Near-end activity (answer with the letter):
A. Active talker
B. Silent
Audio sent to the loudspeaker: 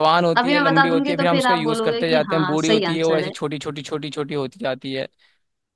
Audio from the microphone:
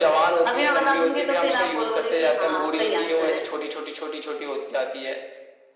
B